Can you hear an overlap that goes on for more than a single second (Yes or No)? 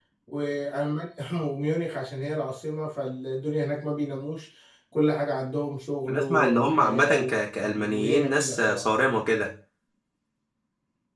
Yes